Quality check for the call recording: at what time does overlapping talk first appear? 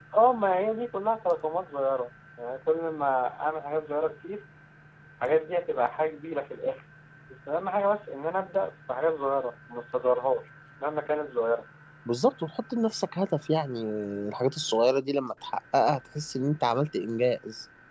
none

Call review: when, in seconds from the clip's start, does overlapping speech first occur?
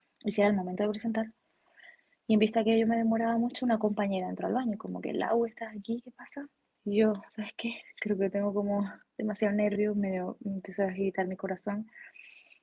none

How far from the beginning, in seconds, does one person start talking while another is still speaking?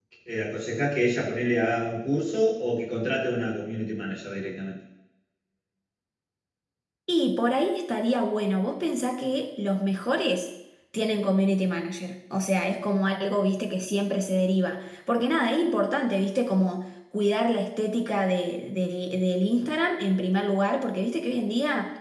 none

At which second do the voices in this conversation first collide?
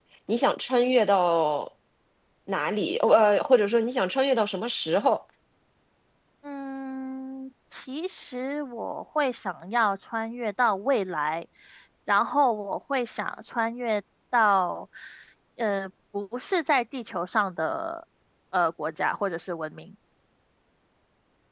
none

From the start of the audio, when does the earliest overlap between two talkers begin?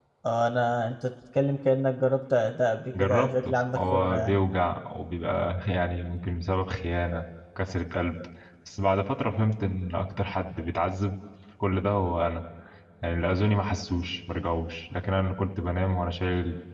3 s

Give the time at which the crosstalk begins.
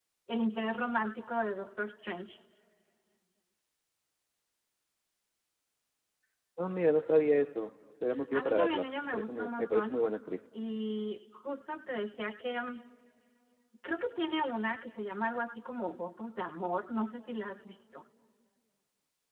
8 s

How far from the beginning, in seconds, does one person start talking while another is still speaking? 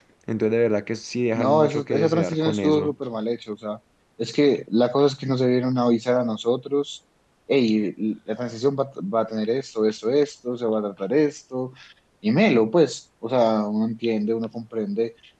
1 s

